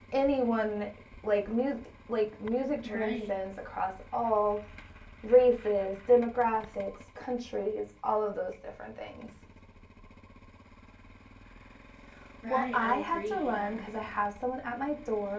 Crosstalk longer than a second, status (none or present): present